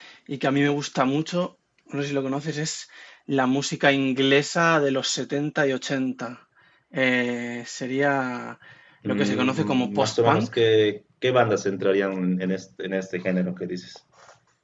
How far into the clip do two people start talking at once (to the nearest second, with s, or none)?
9 s